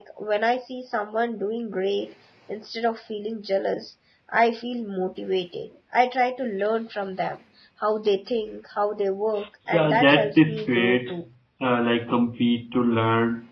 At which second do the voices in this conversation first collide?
9.7 s

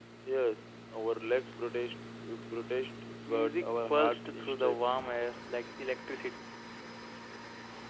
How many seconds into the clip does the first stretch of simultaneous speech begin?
3.3 s

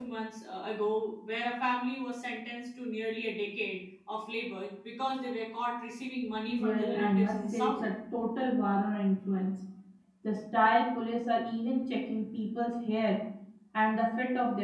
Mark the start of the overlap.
6.5 s

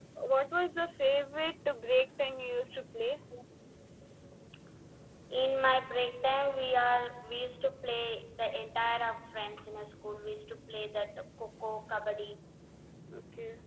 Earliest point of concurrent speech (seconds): none

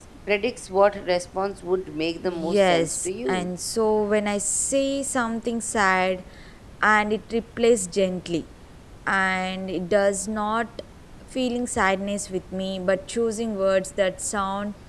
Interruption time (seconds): 2.2 s

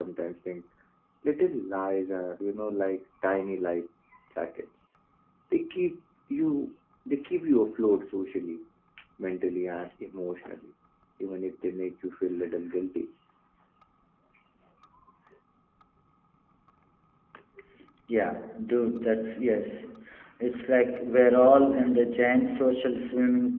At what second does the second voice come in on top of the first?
none

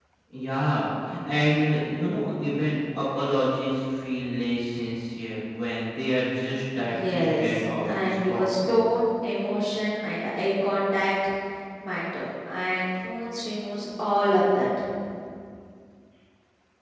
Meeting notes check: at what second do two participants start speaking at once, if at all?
6.8 s

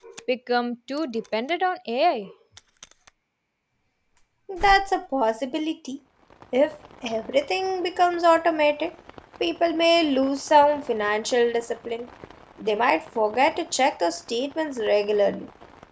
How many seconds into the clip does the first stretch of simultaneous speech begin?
none

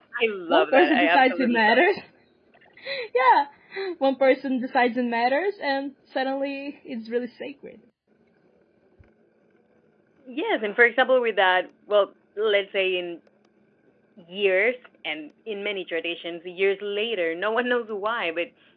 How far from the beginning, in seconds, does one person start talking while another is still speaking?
0.5 s

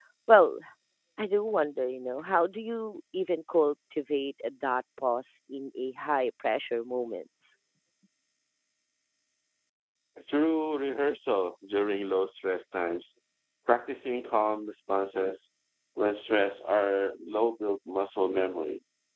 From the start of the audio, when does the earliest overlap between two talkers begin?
none

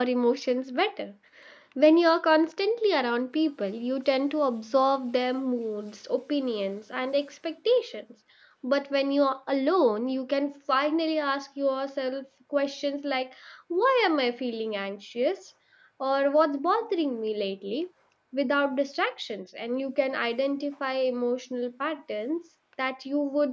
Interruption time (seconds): none

